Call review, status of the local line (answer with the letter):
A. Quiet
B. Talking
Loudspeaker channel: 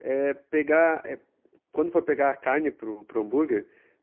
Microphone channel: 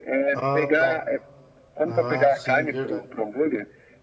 B